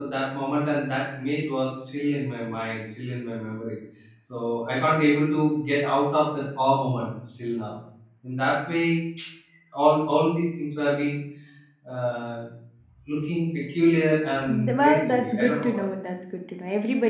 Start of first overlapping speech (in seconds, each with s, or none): 14.5 s